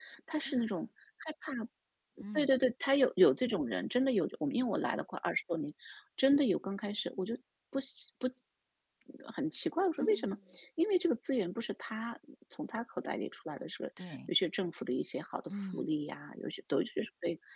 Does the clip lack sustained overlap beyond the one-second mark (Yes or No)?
Yes